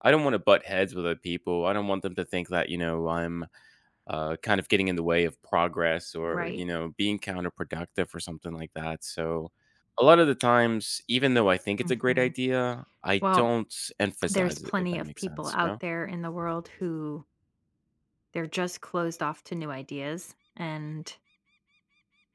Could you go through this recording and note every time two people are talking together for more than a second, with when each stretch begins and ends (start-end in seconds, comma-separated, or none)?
14.3-15.7